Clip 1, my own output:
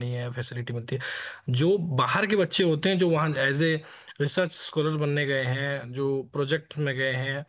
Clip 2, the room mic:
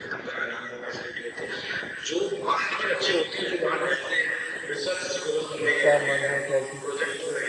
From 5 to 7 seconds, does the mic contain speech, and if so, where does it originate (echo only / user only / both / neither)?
both